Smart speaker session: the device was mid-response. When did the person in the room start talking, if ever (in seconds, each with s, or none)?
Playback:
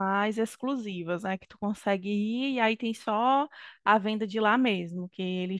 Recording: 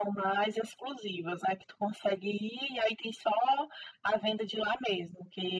none